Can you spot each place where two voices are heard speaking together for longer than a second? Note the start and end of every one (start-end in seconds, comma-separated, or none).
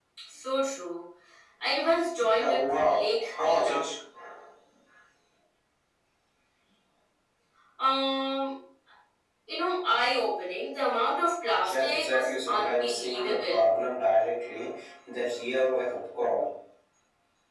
2.4-3.8, 11.7-13.7